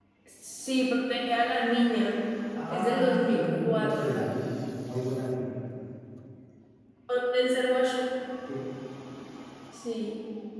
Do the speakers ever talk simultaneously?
Yes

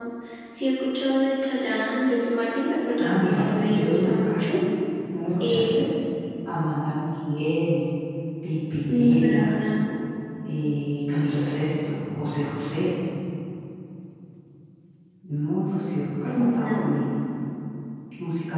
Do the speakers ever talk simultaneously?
Yes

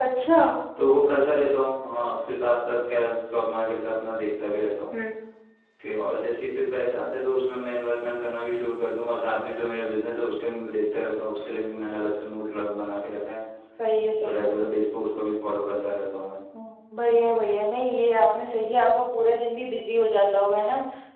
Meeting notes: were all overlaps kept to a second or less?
Yes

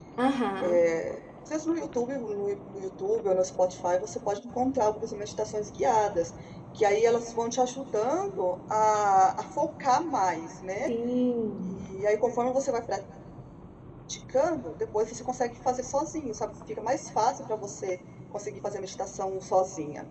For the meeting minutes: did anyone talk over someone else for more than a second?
No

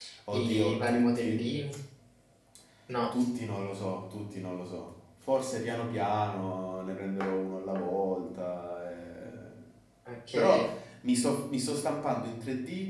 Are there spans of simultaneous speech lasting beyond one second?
Yes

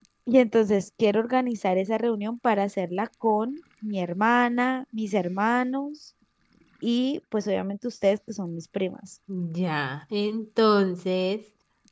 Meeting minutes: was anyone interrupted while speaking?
No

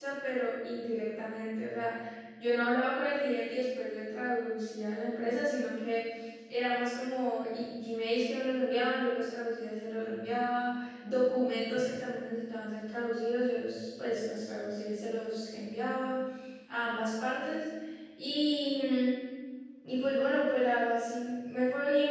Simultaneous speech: No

